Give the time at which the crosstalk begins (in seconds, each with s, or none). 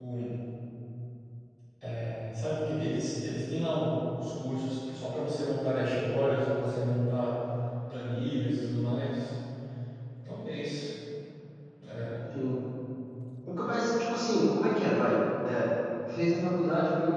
none